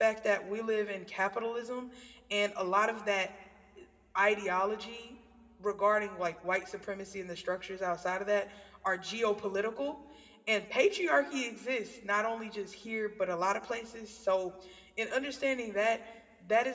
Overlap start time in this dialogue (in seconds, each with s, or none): none